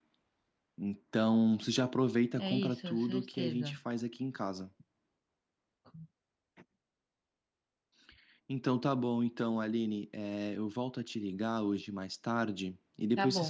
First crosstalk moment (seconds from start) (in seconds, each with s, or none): 2.4 s